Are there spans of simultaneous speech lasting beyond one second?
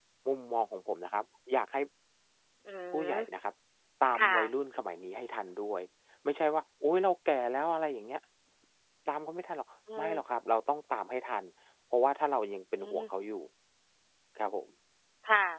No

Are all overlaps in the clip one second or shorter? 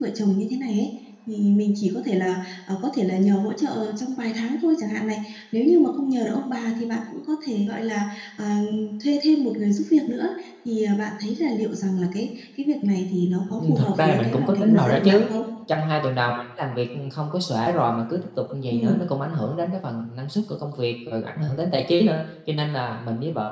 No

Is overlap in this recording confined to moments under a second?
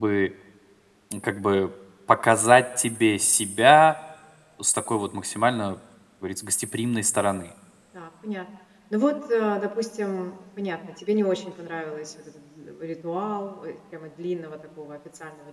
Yes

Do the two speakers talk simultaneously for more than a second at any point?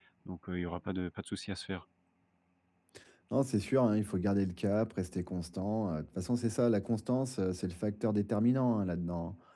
No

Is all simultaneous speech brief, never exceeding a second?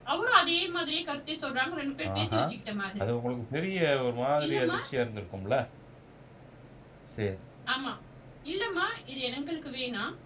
Yes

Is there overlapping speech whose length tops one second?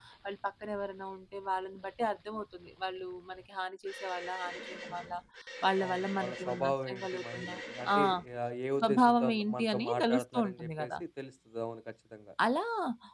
Yes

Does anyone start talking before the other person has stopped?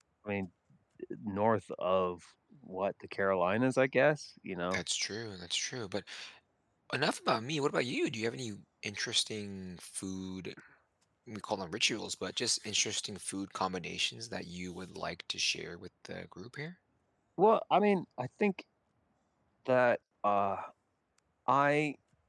No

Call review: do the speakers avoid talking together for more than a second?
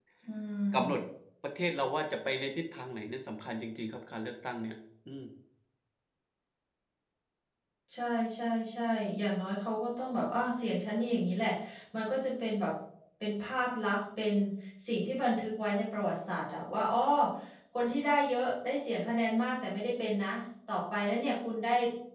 Yes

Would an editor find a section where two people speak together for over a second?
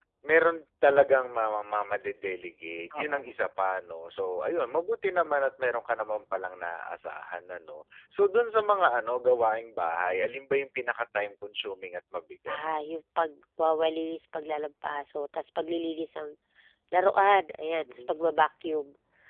No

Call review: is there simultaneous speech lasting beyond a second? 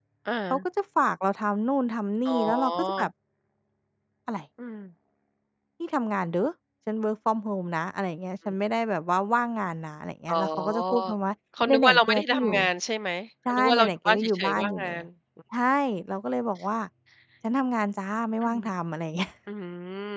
Yes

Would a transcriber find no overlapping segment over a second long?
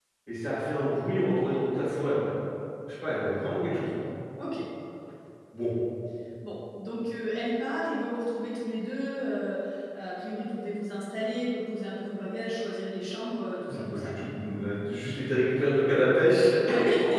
Yes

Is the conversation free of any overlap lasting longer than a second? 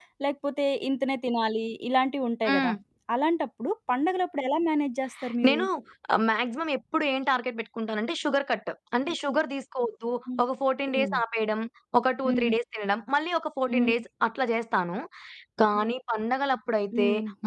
Yes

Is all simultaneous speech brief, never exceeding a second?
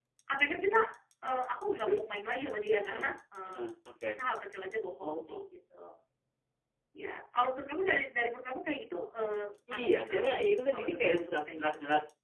No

